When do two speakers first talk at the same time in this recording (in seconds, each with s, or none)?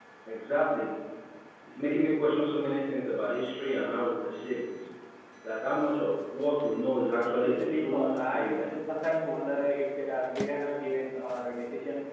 7.4 s